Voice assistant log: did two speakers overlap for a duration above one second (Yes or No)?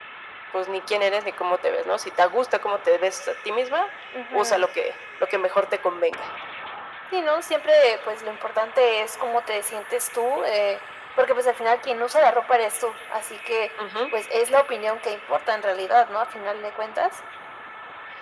No